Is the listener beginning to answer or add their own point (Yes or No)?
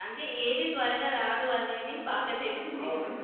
Yes